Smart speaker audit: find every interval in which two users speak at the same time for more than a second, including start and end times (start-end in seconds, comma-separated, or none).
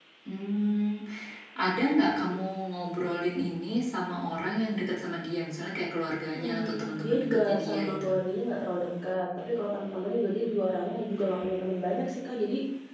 6.3-8.1